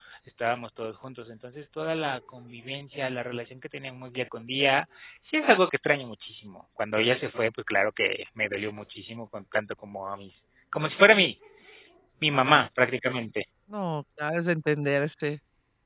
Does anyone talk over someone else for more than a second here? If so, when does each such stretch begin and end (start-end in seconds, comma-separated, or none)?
none